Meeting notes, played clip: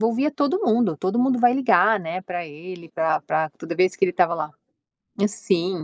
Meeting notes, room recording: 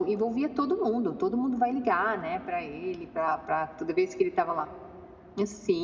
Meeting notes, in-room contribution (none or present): none